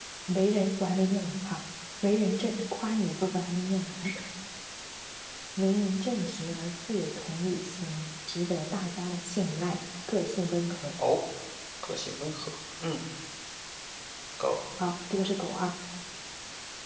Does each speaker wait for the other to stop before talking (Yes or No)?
Yes